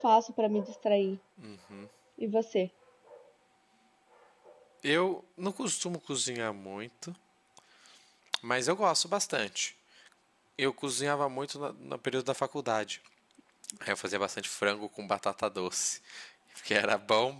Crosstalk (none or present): none